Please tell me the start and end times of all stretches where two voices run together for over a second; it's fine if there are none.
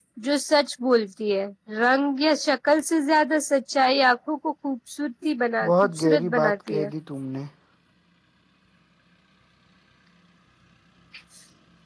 5.6-6.9

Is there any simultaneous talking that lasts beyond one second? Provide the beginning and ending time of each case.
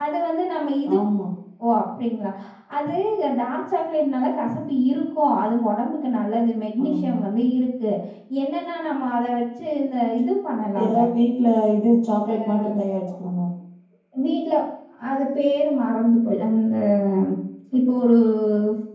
none

